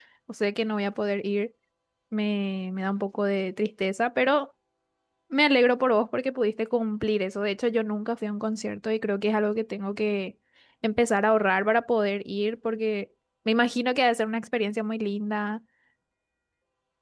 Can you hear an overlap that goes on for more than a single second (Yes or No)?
No